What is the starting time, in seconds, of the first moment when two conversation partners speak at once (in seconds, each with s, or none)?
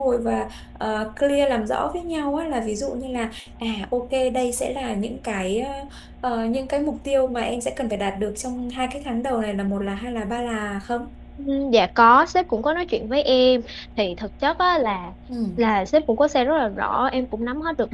none